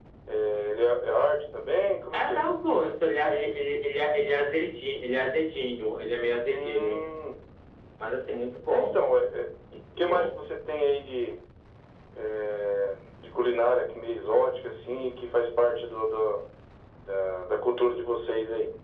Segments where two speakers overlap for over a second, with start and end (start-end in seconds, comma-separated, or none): none